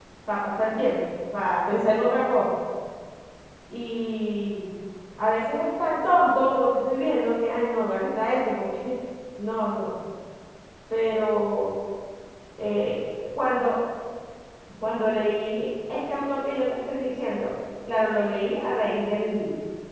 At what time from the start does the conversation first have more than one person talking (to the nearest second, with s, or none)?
none